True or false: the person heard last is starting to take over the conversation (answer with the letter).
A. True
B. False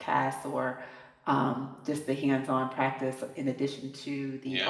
B